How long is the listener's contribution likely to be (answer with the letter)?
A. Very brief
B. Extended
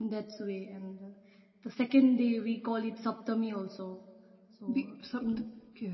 B